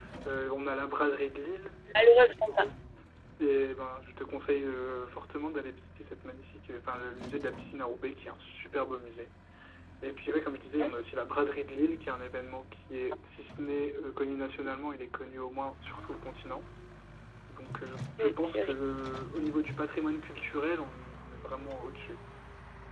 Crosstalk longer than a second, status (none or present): none